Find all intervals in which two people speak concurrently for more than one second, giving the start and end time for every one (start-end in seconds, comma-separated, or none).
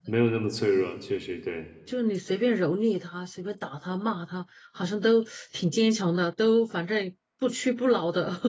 none